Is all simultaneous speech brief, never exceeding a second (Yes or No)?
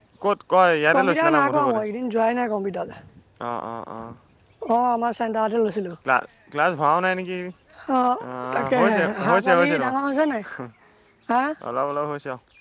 No